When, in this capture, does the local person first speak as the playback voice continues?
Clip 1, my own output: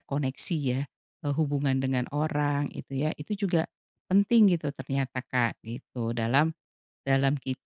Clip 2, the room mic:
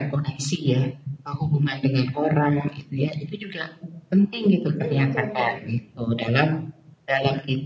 5 s

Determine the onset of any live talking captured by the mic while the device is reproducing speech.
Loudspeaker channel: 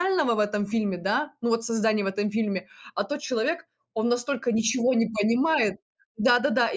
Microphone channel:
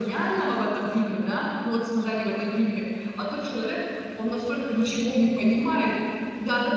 none

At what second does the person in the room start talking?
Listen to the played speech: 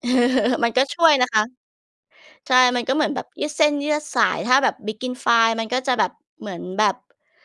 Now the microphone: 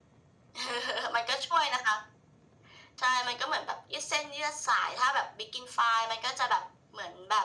none

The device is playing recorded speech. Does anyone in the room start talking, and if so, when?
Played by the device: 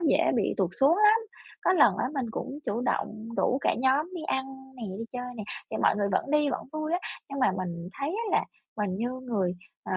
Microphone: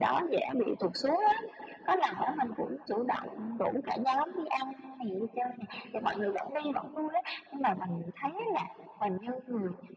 none

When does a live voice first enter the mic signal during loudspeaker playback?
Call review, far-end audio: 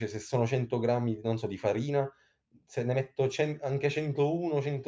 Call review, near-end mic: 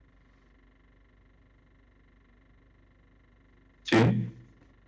4 s

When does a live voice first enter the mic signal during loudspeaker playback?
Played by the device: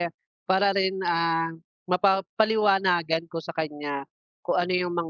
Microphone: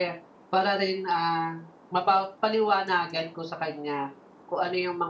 none

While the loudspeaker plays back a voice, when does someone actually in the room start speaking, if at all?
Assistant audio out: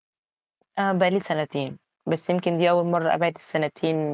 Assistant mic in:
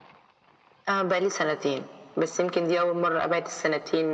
none

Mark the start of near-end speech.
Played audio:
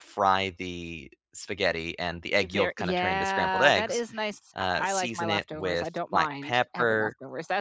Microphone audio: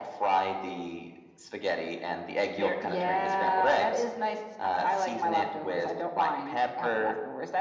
none

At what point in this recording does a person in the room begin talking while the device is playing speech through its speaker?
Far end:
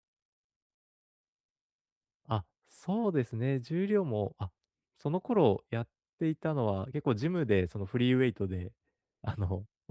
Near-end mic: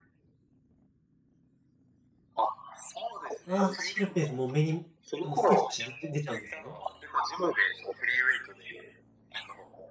3 s

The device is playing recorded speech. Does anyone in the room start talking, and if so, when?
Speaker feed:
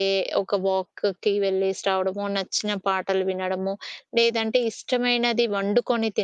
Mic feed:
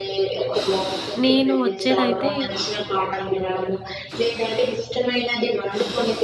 1 s

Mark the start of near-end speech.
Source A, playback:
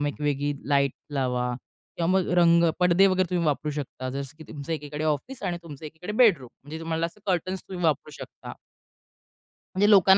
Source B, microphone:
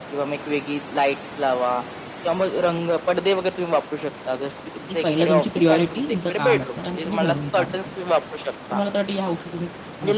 5 s

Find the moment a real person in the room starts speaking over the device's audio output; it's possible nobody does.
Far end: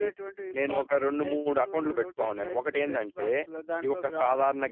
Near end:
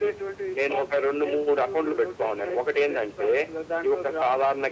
none

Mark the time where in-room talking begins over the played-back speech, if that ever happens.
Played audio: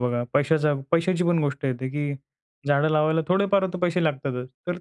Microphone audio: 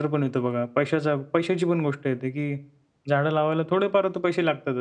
none

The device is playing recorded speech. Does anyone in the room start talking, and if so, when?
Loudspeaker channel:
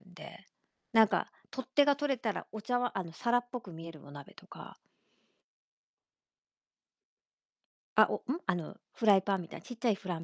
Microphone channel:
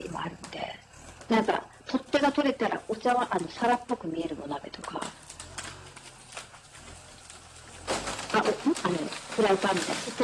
none

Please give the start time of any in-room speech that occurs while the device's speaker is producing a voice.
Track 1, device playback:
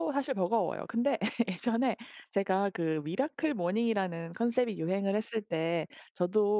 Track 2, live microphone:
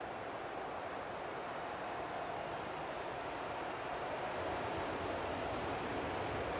none

